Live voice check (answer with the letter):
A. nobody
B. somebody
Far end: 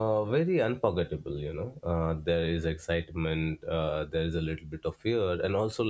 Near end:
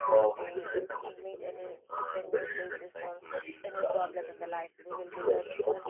B